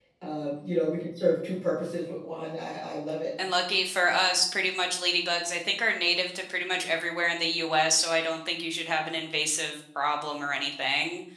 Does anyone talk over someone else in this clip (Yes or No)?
No